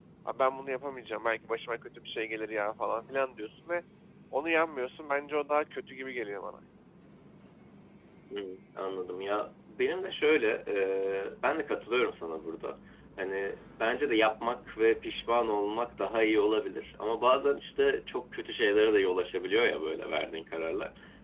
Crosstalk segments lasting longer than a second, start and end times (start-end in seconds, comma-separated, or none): none